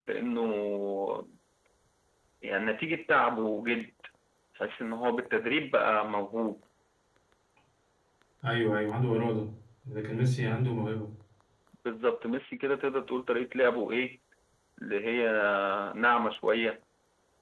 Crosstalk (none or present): none